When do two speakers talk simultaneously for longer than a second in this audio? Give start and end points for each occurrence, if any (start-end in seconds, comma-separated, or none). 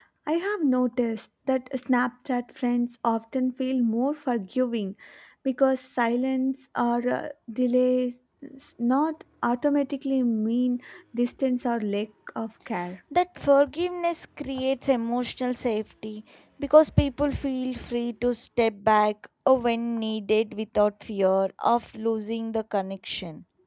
none